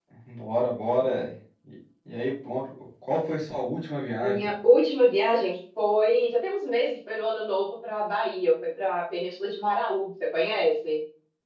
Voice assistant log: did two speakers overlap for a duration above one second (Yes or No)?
No